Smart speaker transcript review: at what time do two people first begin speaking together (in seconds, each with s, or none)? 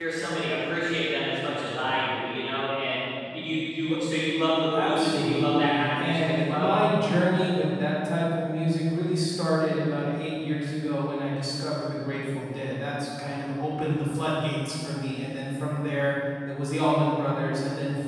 4.7 s